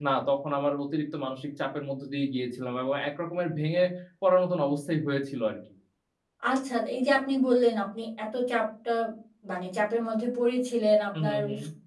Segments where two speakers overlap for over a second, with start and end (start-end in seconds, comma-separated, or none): none